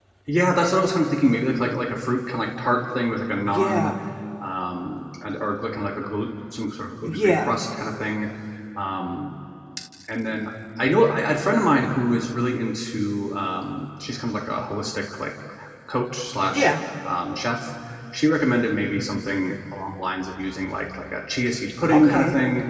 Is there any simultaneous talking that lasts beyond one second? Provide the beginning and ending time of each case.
none

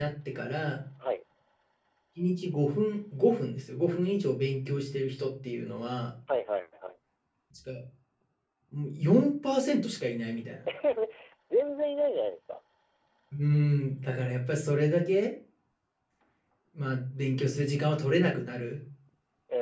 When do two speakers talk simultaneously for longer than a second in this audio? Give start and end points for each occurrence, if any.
none

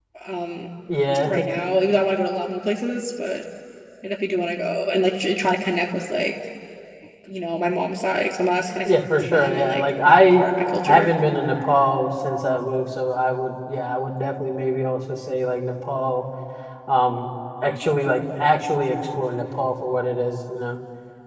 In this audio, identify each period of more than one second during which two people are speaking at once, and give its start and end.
8.8-10.4

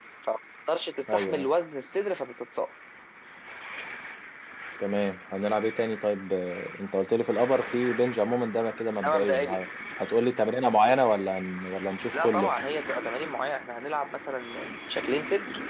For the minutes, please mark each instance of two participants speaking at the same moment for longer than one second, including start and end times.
none

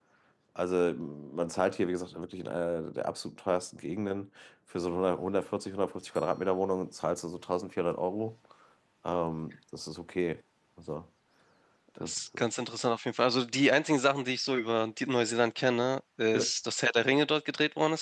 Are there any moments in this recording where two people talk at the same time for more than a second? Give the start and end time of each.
none

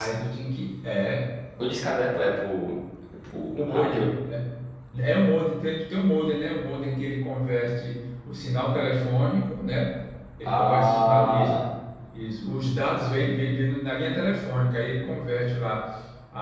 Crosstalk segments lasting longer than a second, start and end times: 10.4-11.6

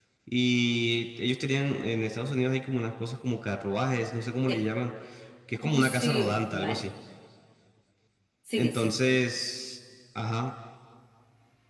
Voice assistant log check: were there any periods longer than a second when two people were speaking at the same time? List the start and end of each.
5.6-6.8

